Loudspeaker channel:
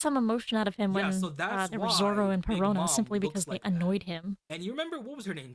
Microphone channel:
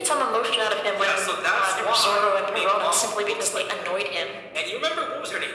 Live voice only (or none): none